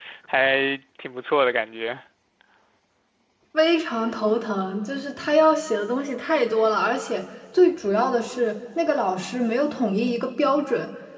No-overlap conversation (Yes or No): Yes